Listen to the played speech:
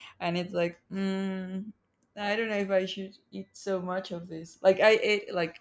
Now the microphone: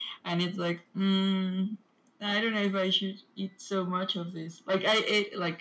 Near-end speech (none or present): none